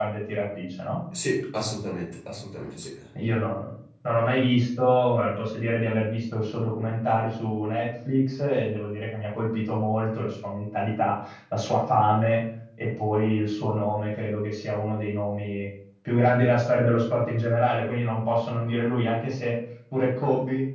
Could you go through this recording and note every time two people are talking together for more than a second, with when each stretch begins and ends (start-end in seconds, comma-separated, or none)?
none